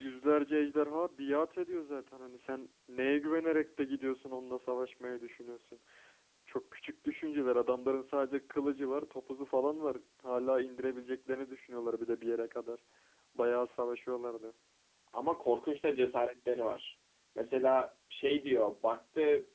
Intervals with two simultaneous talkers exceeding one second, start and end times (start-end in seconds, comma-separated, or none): none